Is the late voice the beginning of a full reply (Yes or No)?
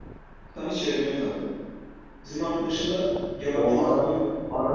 Yes